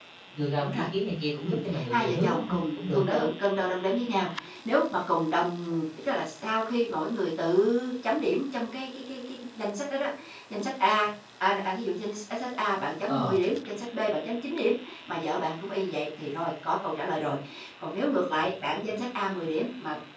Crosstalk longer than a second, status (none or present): present